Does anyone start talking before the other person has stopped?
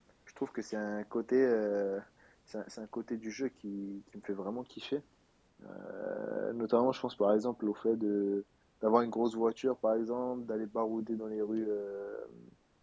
No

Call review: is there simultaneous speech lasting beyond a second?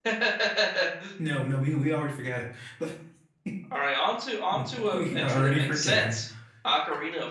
Yes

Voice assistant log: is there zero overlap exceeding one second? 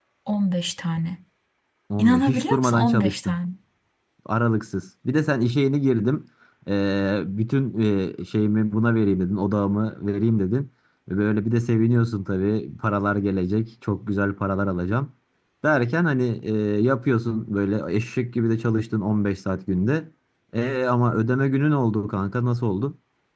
No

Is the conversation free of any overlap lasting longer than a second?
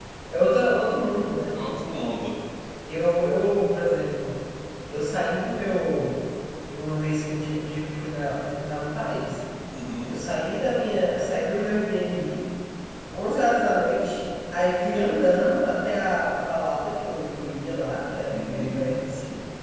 Yes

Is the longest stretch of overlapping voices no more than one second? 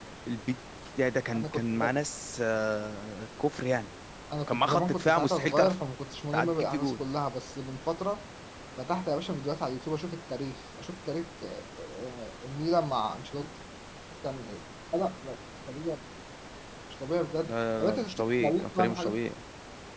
No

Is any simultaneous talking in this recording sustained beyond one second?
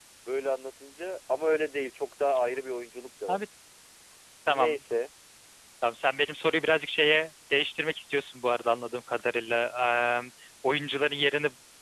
No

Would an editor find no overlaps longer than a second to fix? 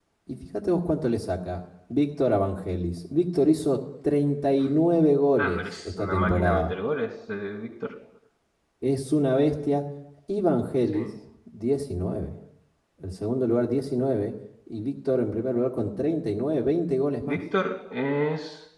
No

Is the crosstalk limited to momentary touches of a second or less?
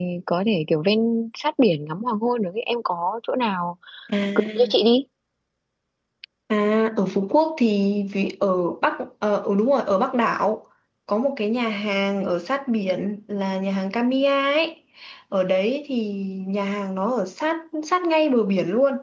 Yes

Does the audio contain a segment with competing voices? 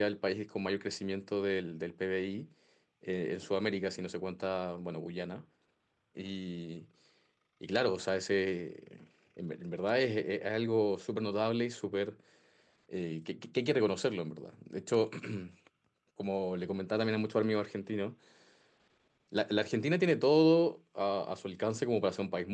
No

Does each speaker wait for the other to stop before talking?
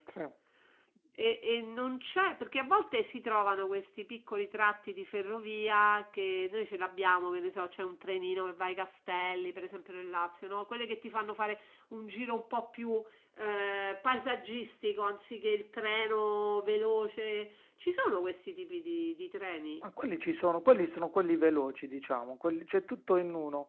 Yes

